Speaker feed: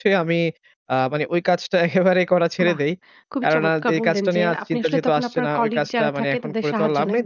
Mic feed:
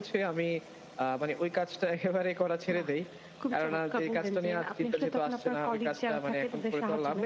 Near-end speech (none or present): none